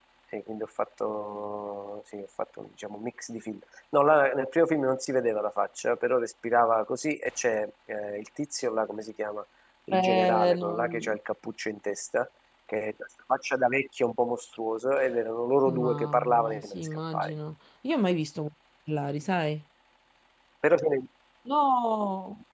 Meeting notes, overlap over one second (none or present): present